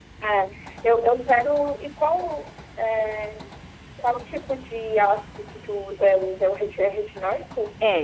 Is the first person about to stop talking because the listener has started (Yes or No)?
Yes